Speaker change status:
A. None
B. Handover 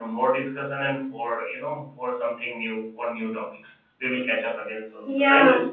B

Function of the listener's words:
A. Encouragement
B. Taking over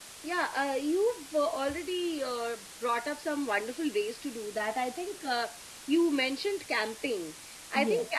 A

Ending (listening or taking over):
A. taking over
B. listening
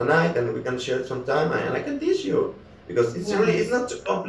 B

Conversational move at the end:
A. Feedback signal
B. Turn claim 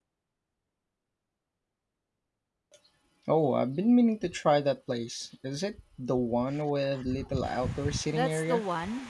B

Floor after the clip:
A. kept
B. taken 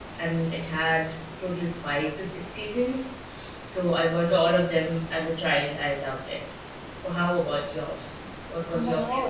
B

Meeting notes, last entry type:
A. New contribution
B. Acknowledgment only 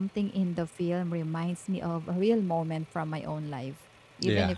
B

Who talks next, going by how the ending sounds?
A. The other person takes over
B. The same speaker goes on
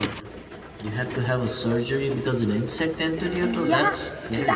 A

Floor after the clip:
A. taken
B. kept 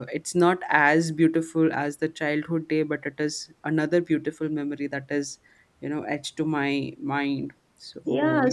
A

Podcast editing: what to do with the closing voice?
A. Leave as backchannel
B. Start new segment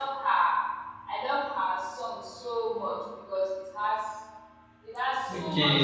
B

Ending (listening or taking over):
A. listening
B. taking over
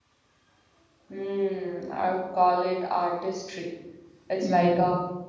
A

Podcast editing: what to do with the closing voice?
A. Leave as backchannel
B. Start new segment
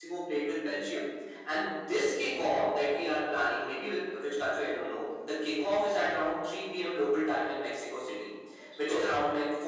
A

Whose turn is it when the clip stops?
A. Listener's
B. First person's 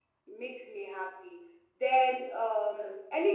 B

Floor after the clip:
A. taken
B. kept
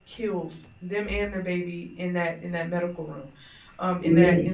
B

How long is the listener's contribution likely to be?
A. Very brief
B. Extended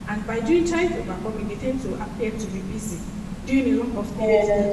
A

